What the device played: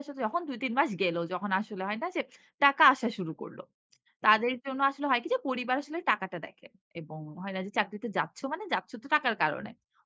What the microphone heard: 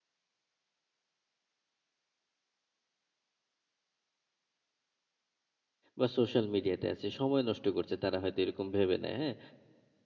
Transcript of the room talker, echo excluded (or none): বা সোশ্যাল মিডিয়াতে আছে। সময় নষ্ট করছে তারা হয়তো এরকম ভেবে নেয়, হ্যাঁ?